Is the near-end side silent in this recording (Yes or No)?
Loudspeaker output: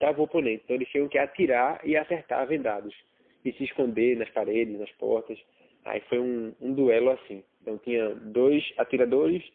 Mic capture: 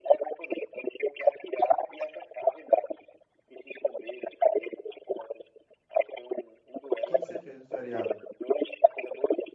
No